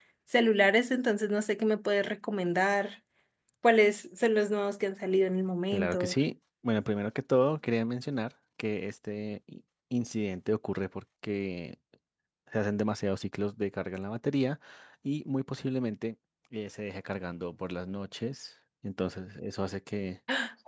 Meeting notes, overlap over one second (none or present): none